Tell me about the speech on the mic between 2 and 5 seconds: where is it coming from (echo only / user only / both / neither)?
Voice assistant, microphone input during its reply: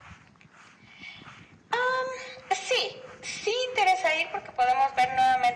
echo only